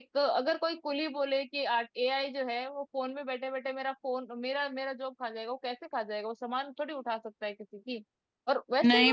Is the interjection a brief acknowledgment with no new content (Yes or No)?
No